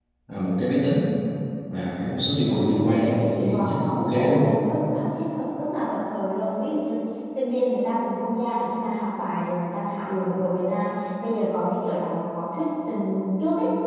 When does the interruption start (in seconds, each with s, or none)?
2.4 s